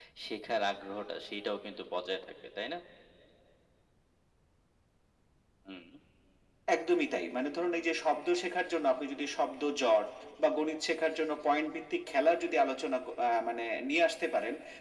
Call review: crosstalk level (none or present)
none